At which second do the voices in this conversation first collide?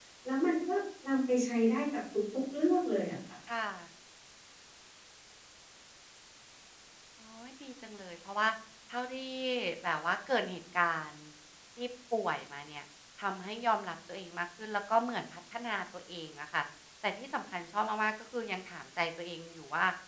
none

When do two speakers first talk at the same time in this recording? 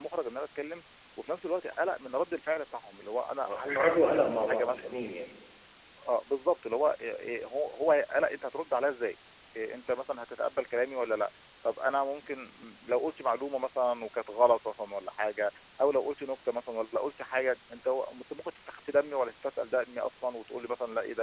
3 s

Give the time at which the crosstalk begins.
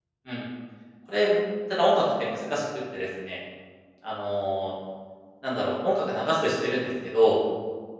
none

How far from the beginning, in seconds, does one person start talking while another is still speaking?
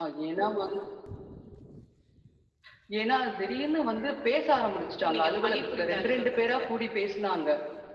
5 s

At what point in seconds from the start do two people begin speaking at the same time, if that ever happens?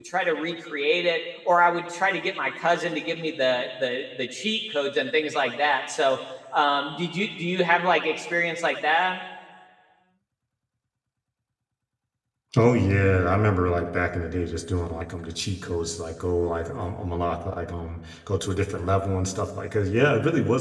none

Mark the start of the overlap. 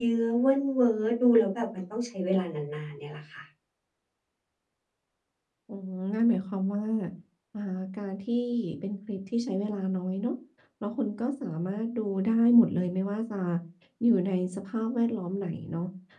none

